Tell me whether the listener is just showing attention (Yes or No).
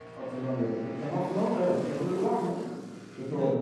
No